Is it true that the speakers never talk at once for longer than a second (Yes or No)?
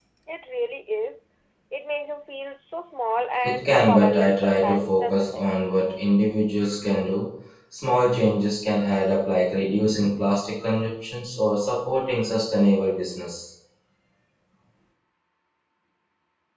No